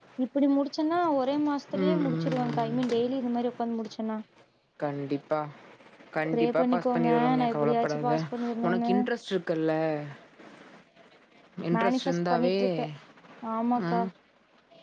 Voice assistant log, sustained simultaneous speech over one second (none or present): present